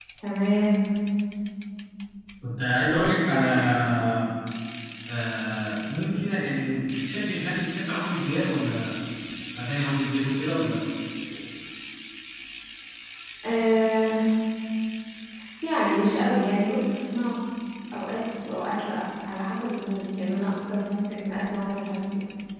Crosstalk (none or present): none